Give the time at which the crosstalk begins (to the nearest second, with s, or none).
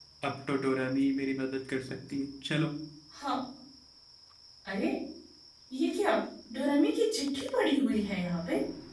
none